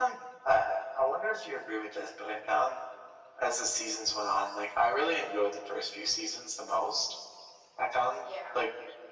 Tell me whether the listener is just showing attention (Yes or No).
Yes